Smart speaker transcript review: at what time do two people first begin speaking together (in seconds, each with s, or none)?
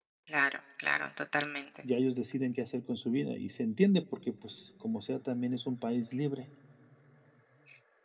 none